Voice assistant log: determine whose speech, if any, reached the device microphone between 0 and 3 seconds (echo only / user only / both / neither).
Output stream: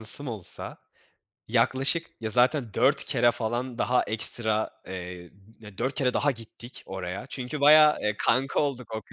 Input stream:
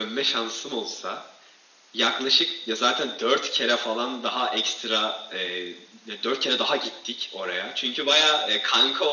echo only